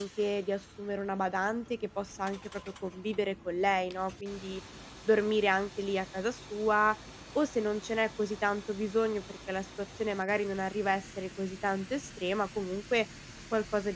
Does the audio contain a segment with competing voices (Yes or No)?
No